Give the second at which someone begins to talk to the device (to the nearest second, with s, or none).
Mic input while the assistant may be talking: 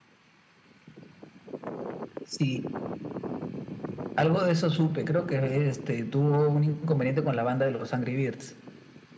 none